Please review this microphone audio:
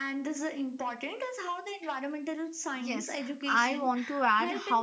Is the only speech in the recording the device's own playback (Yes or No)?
No